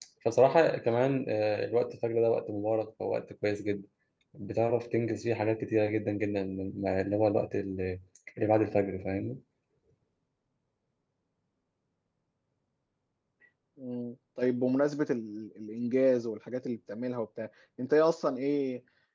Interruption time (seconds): none

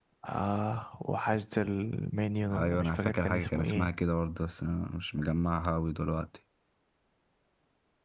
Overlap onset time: 2 s

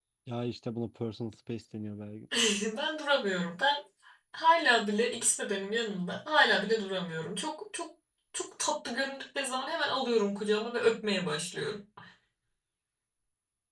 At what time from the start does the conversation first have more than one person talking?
none

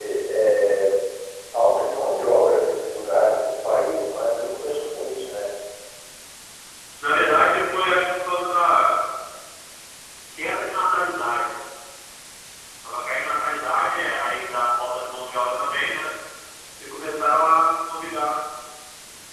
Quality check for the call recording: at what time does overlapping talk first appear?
none

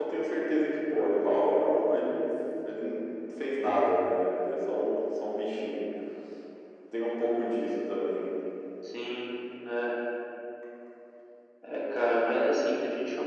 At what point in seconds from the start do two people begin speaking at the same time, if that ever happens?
none

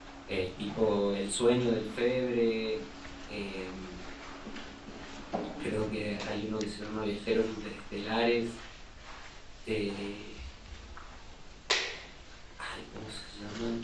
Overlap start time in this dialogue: none

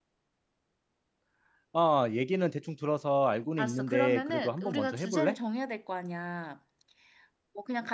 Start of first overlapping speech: 4 s

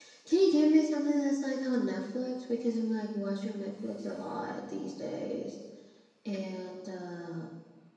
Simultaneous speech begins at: none

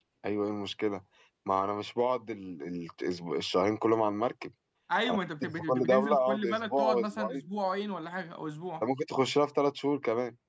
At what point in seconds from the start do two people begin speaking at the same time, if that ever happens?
5 s

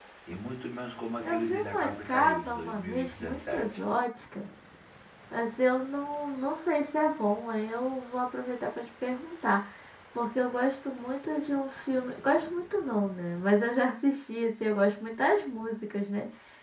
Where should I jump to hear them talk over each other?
1 s

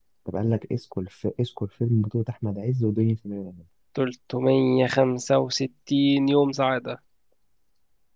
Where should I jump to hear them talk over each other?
none

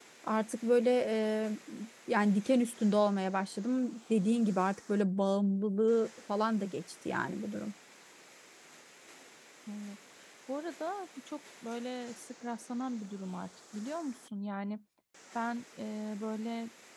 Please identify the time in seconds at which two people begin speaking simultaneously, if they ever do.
none

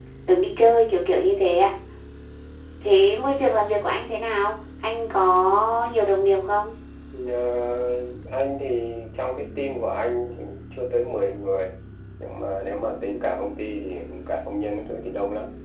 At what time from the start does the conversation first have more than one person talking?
none

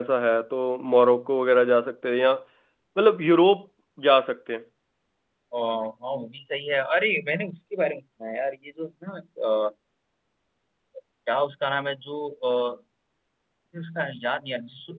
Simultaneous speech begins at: none

